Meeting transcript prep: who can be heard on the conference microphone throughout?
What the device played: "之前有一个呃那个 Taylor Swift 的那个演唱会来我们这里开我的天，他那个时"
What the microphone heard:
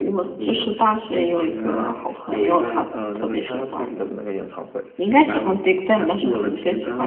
both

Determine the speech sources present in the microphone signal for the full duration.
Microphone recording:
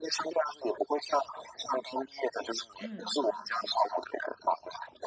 both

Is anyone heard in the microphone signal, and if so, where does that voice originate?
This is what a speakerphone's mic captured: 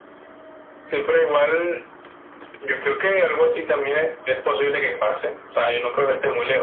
echo only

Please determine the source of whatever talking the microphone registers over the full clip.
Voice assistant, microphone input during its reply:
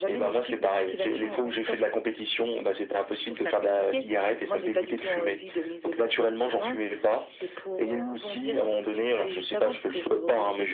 echo only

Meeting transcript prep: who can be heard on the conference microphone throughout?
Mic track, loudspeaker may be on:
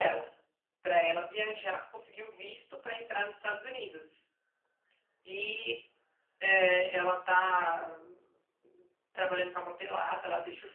echo only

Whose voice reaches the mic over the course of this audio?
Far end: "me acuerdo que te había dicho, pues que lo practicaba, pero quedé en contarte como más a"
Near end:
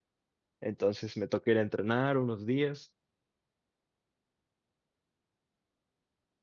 user only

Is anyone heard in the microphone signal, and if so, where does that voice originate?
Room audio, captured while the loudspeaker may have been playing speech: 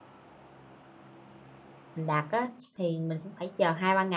user only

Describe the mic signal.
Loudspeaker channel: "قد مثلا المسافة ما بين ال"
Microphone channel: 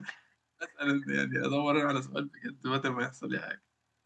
user only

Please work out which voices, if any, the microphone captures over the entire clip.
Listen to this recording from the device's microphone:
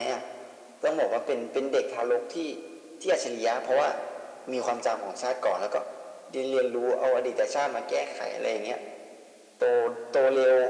echo only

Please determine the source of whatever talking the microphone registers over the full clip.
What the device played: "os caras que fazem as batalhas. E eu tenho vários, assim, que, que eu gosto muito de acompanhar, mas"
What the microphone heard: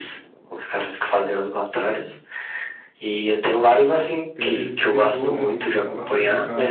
both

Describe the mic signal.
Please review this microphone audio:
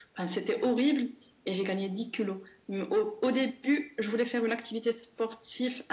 echo only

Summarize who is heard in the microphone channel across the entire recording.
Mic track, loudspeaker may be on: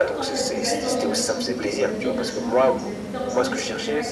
both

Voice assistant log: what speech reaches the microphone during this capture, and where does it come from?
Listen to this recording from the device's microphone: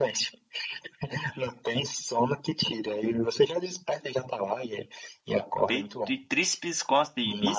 both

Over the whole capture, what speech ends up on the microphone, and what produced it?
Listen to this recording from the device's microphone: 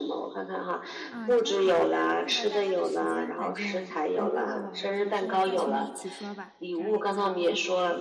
both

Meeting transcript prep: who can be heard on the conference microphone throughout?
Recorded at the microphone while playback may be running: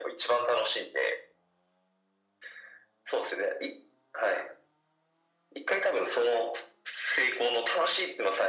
echo only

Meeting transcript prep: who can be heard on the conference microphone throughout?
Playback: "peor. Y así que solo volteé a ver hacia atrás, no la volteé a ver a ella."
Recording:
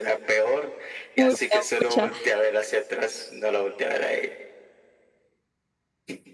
both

